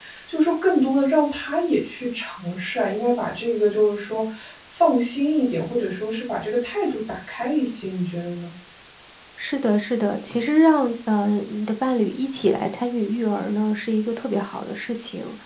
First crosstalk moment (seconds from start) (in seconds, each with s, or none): none